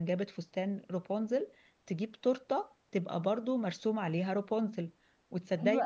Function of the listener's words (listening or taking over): listening